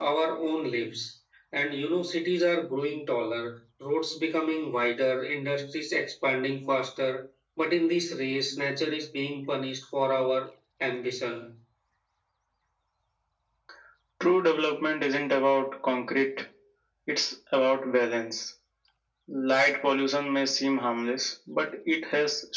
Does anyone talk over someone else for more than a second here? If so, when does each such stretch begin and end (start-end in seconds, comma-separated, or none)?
none